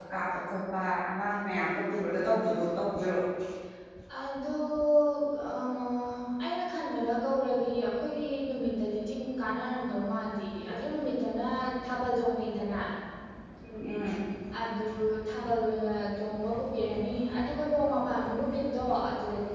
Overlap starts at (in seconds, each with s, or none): none